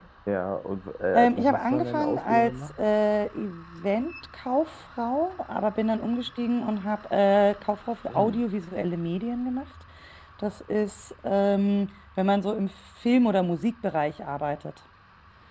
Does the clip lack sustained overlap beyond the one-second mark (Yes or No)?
No